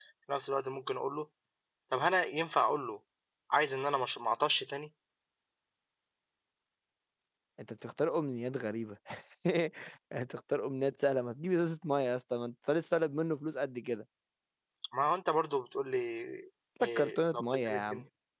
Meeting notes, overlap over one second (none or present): present